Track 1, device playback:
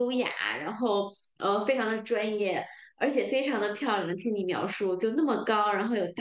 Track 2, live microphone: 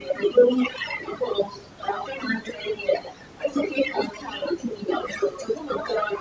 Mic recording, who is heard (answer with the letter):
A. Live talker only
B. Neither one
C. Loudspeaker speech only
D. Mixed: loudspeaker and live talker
C